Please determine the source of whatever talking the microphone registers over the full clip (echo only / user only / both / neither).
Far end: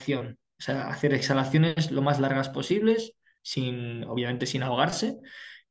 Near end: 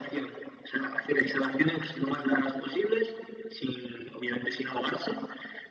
echo only